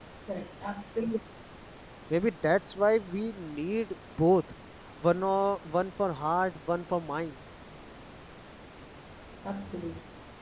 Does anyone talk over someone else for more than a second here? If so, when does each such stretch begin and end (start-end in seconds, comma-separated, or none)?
none